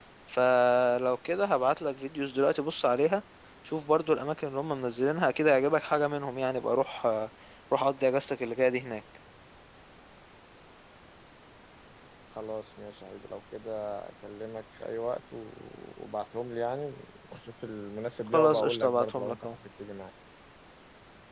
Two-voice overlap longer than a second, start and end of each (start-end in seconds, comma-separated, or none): 18.3-19.6